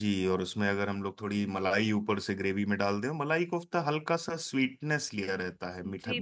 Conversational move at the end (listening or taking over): taking over